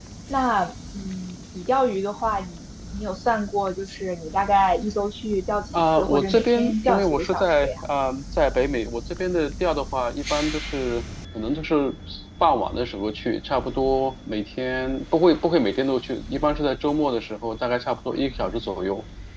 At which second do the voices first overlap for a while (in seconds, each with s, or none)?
5.7 s